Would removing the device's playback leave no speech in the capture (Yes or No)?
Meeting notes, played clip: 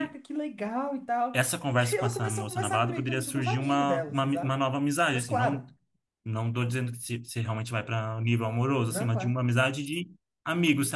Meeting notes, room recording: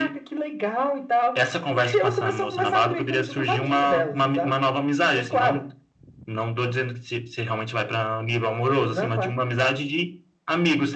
Yes